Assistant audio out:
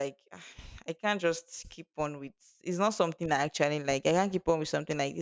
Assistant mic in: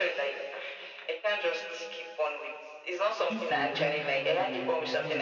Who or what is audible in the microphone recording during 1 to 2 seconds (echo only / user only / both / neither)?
echo only